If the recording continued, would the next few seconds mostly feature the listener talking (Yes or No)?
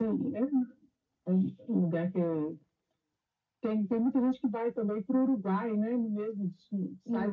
No